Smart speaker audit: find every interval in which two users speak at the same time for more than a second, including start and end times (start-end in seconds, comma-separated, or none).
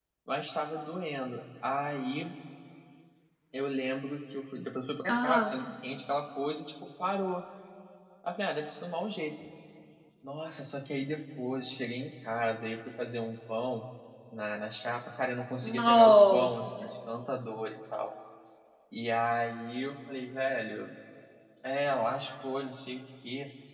15.6-16.8